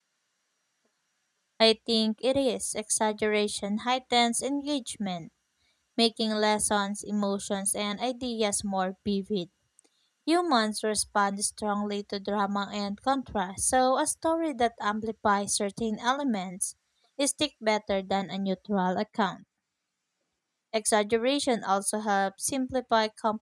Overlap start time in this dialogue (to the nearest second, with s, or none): none